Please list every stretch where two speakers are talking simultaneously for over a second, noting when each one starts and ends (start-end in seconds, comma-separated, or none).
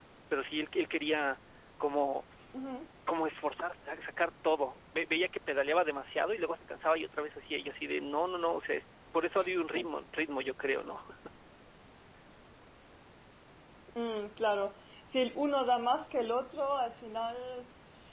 none